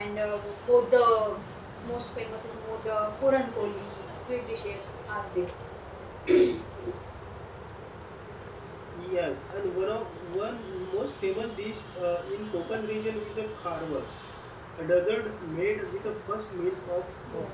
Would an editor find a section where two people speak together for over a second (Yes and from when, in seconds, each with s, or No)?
No